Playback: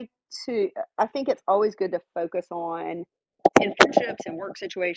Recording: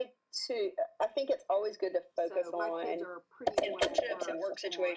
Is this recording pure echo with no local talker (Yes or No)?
No